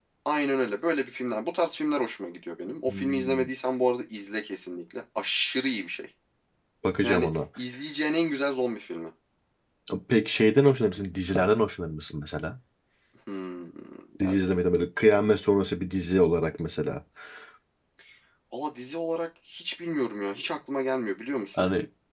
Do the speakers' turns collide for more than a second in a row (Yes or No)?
No